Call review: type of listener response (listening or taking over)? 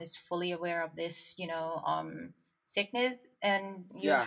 taking over